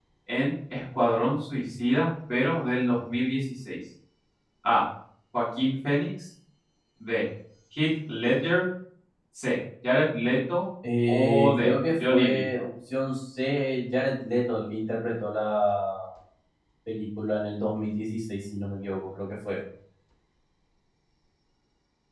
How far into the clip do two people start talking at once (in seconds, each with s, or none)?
10.8 s